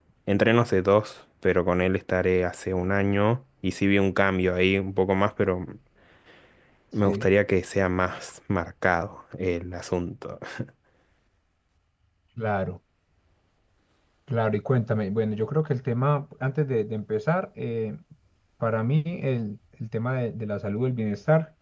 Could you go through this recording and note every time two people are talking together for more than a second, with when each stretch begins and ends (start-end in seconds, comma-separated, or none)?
none